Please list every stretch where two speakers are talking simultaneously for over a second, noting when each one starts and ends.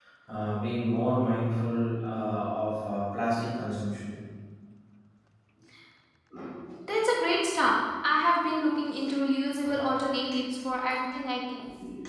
none

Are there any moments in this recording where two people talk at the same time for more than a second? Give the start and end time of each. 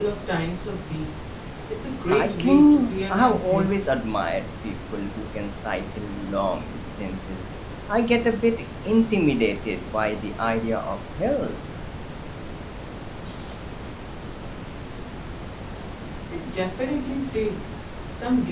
2.0-3.7

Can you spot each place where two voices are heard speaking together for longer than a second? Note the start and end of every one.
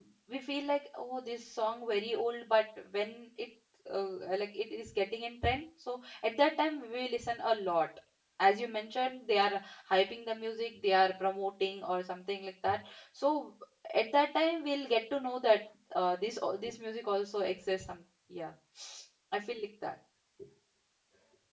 none

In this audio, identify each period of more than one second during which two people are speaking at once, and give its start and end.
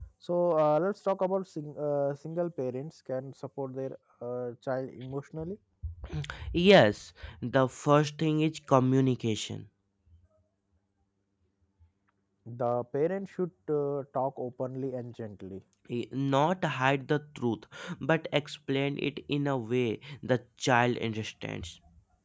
none

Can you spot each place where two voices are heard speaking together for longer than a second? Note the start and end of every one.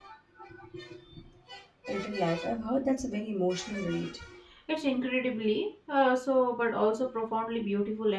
none

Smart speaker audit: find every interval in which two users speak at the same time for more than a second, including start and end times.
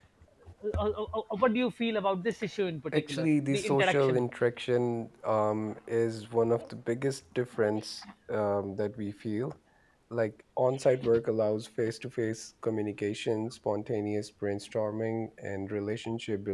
2.9-4.2

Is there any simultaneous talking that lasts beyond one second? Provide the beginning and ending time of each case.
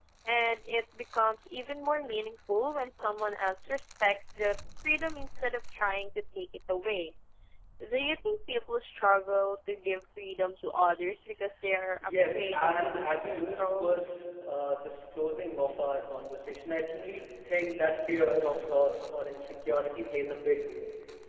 12.0-14.0

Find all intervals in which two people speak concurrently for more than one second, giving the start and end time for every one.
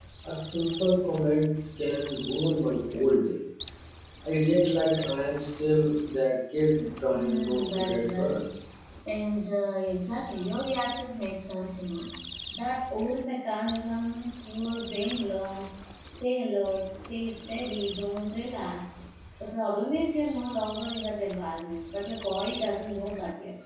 7.1-8.4

